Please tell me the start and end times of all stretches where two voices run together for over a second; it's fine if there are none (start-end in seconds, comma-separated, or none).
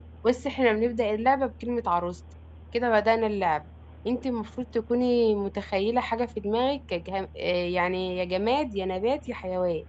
none